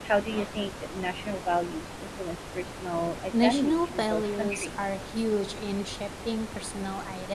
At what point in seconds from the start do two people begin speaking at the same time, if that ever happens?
3 s

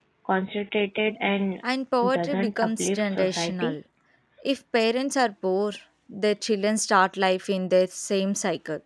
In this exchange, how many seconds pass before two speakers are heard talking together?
2 s

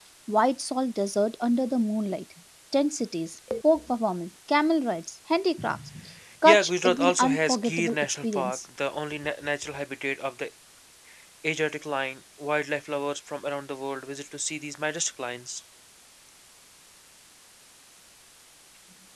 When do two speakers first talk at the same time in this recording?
6 s

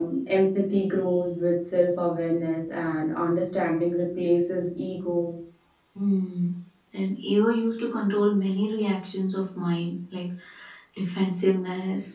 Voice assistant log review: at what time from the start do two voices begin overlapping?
none

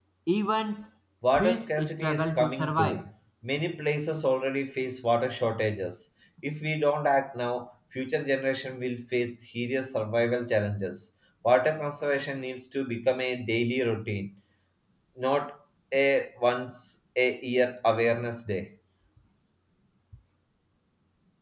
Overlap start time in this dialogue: 1 s

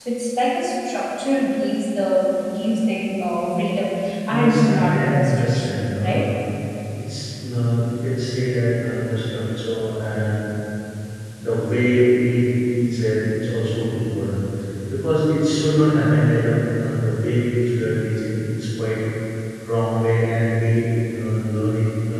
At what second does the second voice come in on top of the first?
4 s

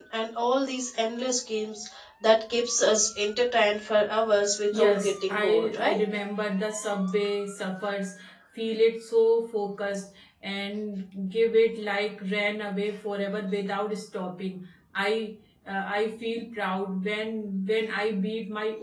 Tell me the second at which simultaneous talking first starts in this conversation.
5 s

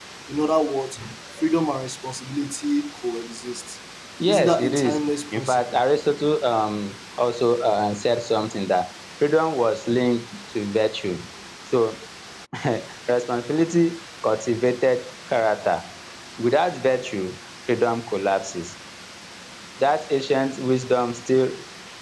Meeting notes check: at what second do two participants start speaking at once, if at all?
4 s

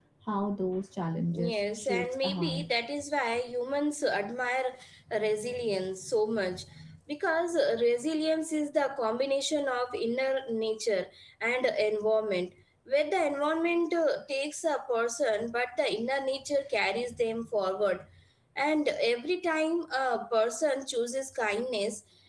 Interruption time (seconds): 1 s

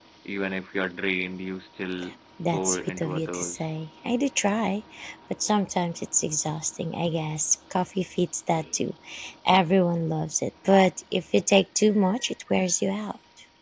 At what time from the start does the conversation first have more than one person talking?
3 s

